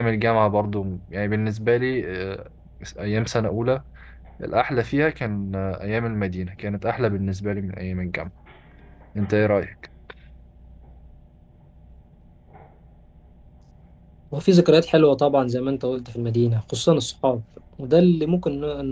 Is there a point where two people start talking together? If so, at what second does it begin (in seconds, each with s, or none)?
none